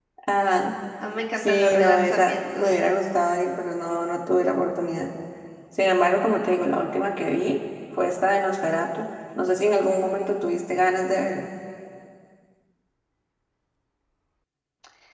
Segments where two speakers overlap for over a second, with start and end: 1.4-2.7

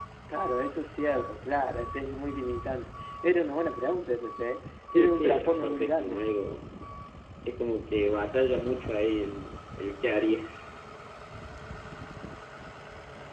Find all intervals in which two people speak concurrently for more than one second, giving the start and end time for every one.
4.9-6.2

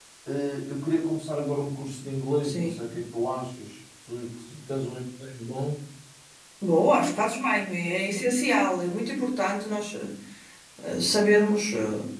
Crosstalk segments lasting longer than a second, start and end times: none

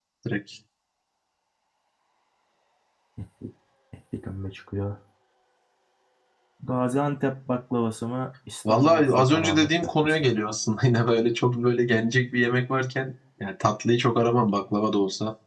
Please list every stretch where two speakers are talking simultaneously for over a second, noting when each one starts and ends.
8.7-10.3

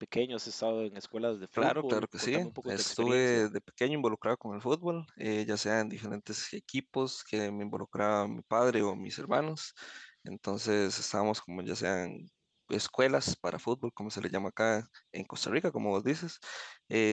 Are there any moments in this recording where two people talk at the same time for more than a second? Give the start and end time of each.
1.6-3.5

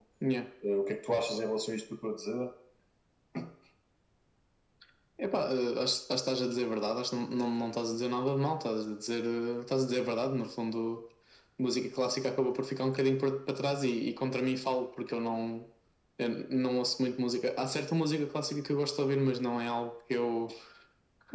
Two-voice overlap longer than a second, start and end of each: none

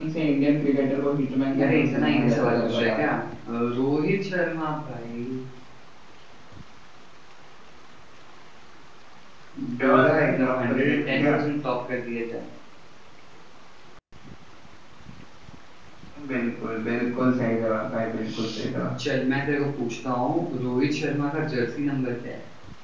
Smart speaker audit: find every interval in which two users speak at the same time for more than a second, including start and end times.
1.6-3.1, 9.8-11.3

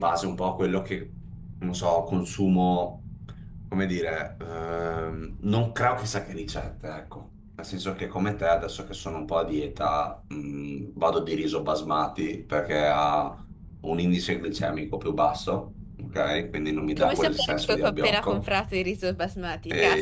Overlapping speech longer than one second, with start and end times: 17.0-18.4

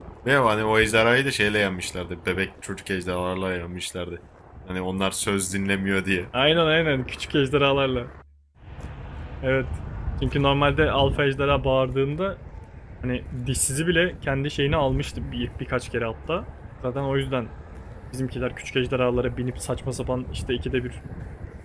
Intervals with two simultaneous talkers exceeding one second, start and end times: none

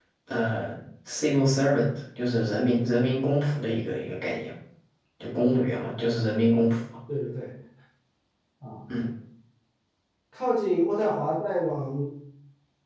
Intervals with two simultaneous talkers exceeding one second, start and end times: none

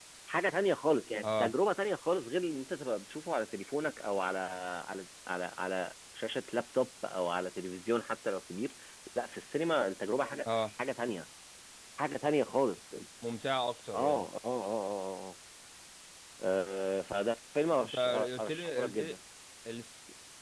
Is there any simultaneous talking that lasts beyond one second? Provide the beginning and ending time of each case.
17.8-19.1

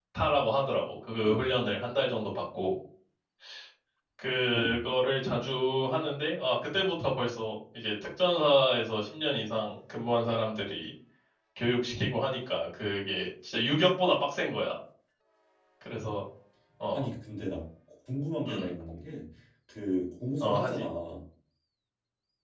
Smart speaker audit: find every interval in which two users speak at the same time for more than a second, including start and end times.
none

